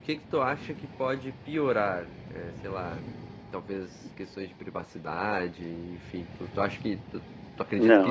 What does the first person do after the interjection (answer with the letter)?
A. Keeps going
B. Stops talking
B